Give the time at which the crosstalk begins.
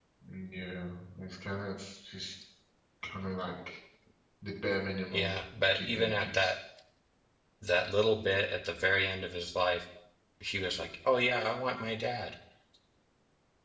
5 s

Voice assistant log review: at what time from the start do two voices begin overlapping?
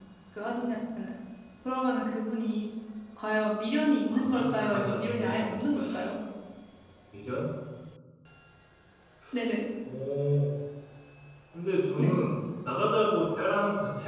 4 s

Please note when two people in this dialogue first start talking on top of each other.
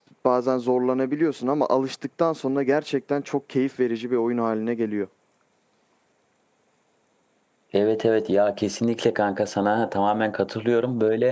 none

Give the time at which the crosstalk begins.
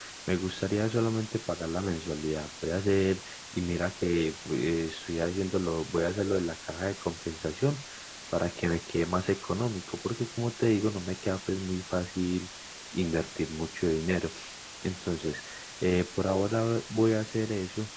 none

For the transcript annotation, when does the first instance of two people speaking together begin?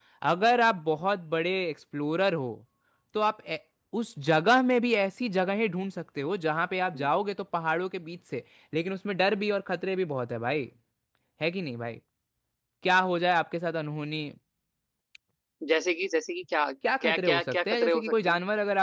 17 s

